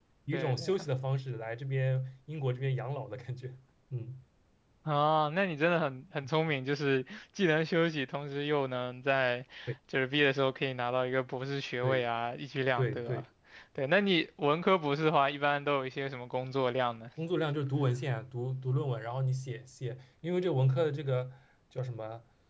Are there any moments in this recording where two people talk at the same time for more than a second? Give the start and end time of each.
none

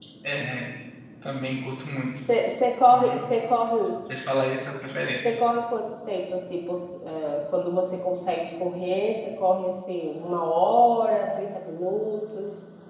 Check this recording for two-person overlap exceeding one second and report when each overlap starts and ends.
none

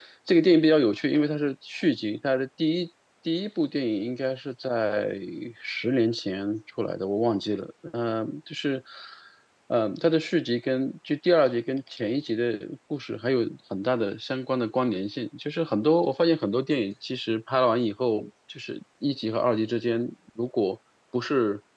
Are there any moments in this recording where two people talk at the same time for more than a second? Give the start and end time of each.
none

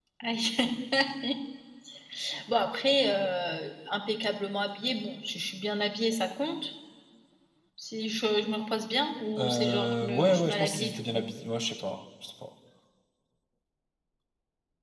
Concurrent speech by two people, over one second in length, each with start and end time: 9.4-11.2

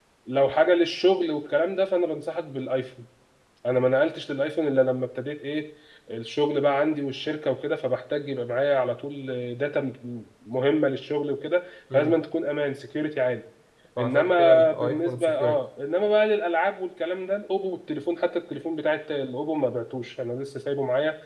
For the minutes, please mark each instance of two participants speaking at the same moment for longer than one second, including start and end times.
14.0-15.6

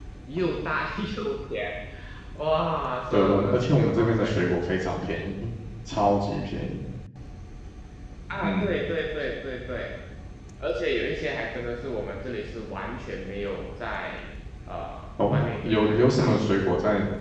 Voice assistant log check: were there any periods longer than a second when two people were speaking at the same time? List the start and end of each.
3.1-4.4, 15.3-16.5

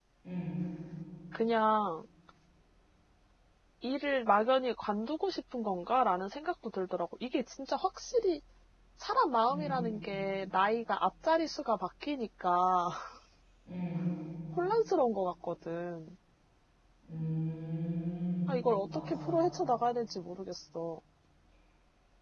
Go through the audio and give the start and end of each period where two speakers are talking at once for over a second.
none

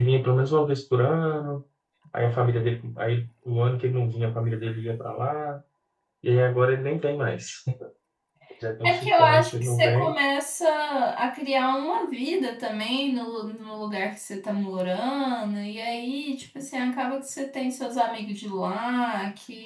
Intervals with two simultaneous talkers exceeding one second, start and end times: 8.9-10.1

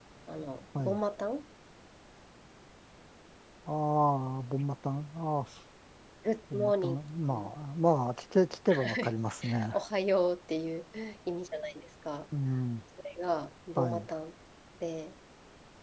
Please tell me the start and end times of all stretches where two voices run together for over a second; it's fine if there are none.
none

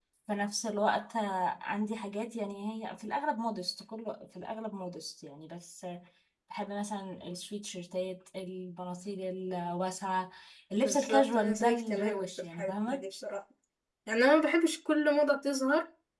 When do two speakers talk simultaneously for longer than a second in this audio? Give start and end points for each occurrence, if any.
10.8-13.0

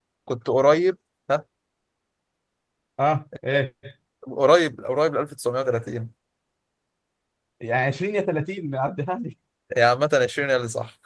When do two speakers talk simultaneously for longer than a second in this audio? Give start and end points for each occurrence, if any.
none

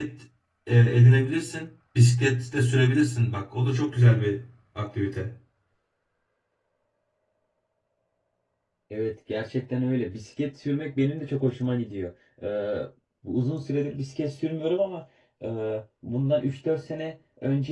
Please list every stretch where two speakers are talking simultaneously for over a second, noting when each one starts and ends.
none

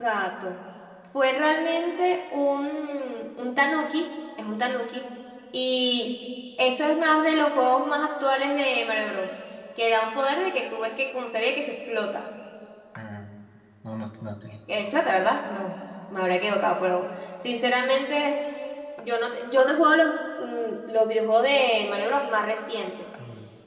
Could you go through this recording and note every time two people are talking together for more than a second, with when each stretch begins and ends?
none

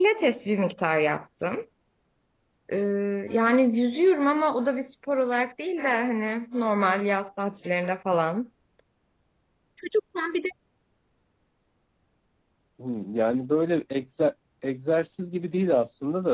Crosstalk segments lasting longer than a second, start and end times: none

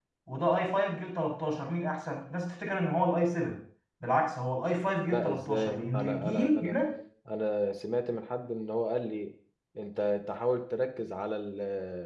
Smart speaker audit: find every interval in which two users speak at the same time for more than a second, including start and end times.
5.1-6.8

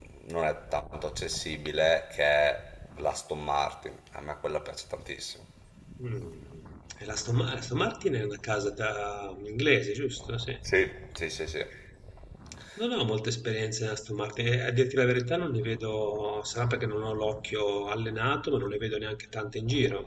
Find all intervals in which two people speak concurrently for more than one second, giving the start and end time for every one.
none

